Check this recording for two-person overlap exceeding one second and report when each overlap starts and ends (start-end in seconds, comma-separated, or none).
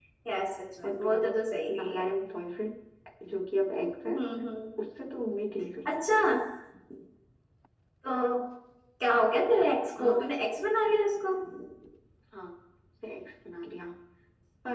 none